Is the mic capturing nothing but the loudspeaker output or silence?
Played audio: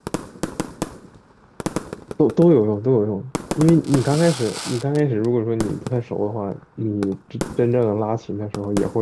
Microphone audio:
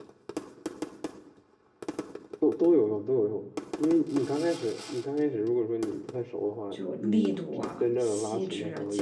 No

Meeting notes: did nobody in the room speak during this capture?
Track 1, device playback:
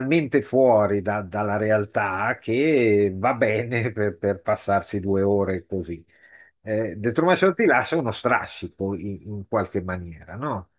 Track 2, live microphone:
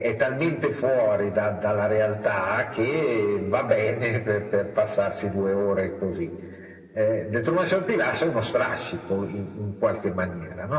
Yes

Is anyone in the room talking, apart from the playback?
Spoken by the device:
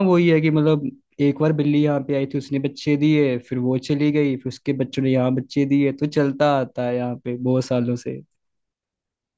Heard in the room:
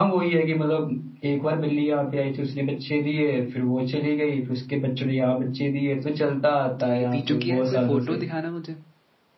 Yes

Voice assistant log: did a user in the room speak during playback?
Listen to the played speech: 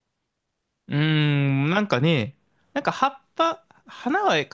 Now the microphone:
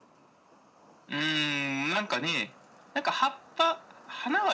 No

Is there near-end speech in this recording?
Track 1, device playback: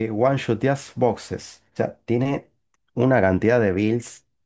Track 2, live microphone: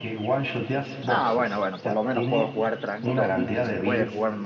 Yes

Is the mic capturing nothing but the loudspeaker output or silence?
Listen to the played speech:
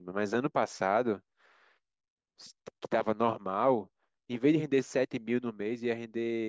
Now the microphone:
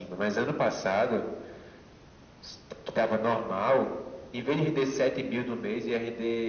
Yes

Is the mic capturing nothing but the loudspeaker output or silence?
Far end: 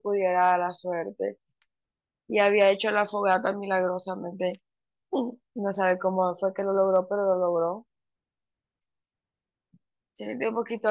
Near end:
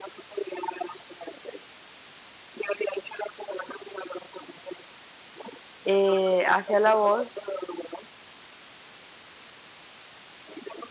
No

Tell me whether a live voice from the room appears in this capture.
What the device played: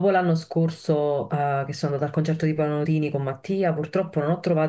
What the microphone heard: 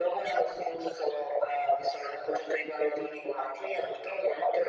No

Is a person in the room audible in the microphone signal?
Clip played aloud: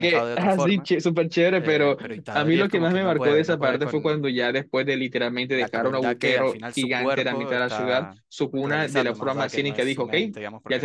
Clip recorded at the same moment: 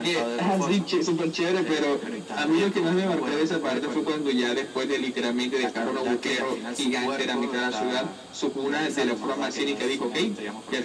No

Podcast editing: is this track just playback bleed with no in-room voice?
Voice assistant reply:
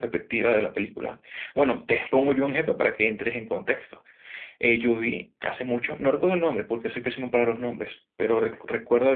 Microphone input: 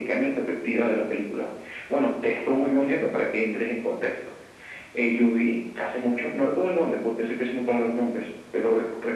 Yes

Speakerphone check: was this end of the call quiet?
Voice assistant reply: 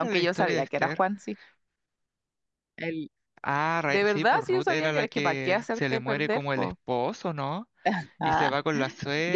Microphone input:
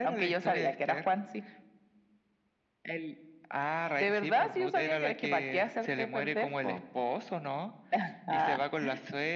Yes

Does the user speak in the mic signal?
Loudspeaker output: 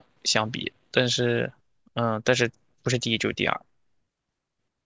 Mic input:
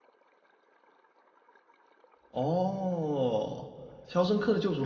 Yes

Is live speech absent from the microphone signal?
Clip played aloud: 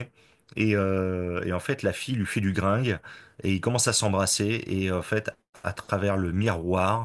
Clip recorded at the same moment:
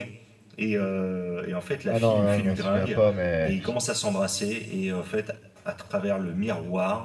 No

